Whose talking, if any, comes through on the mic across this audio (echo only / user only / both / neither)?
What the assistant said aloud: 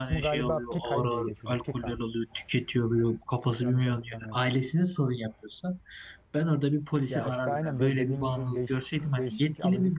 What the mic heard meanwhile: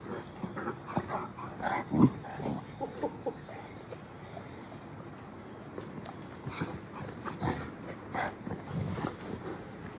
neither